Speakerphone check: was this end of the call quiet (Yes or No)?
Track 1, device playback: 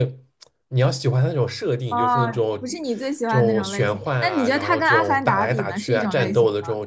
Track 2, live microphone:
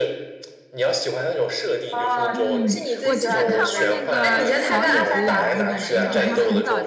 No